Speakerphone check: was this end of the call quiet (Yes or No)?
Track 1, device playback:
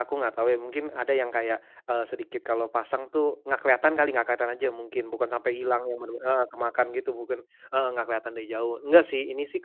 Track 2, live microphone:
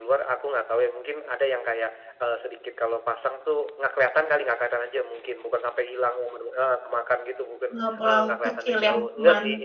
No